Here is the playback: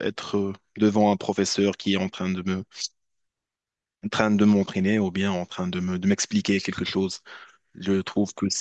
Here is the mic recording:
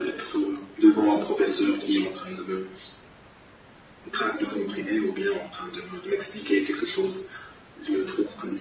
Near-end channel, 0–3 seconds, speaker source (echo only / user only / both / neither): echo only